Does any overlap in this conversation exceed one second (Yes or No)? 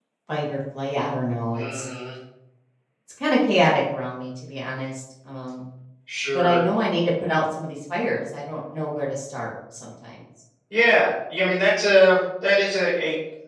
No